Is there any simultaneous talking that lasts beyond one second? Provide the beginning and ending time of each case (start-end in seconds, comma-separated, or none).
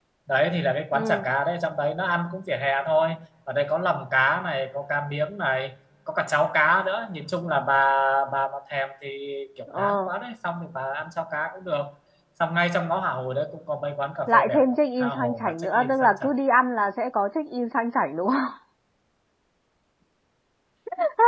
14.3-16.3